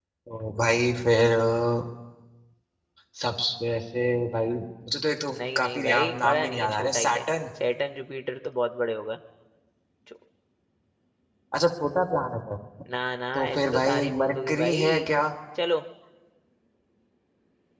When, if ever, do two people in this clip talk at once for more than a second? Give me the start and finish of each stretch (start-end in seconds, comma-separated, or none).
5.4-7.2, 13.3-15.1